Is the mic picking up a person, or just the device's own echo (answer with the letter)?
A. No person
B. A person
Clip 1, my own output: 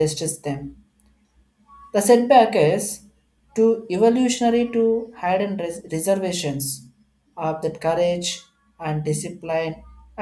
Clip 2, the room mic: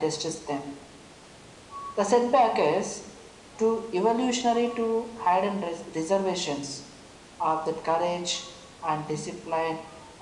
A